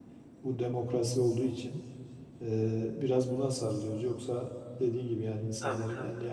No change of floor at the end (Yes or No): Yes